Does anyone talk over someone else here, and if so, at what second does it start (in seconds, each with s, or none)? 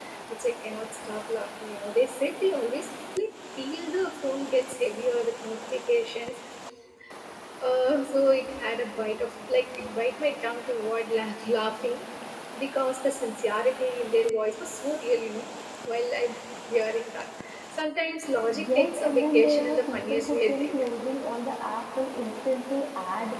18.5 s